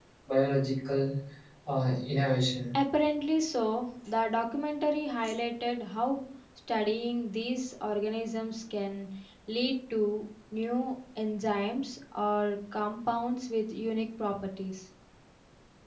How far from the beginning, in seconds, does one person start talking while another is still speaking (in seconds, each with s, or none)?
none